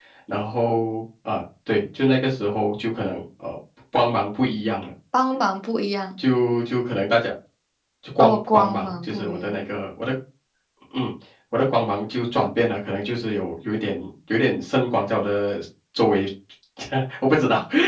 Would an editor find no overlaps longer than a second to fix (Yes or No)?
No